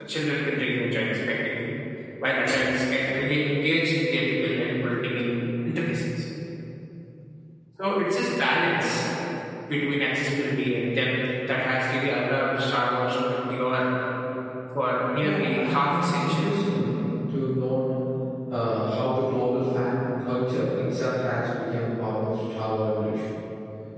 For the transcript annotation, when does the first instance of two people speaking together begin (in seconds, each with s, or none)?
15.2 s